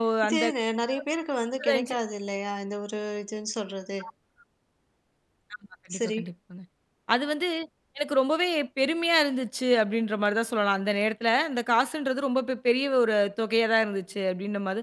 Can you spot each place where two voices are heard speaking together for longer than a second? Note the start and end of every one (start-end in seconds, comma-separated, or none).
none